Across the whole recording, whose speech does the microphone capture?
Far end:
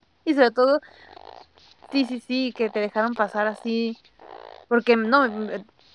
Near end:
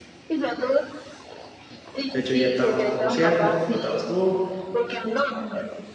both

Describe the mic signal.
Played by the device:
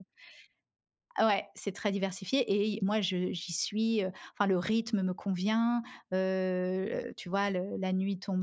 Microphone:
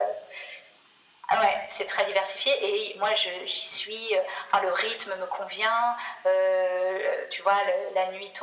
echo only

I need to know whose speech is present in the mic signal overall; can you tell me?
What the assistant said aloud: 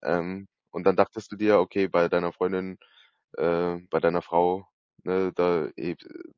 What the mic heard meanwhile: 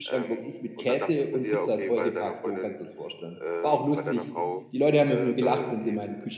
both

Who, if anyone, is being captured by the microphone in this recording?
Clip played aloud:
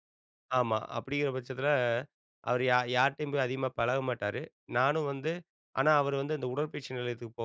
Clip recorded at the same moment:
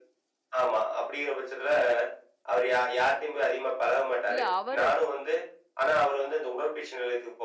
both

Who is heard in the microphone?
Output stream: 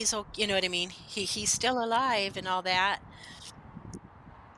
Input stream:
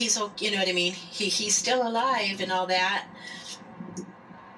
echo only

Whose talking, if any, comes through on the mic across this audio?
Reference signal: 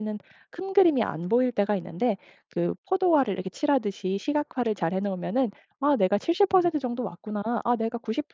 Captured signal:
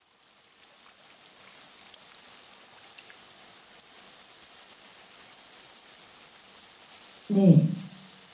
user only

